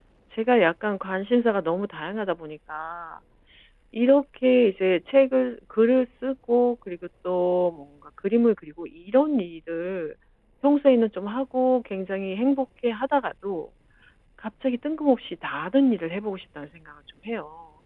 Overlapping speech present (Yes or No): No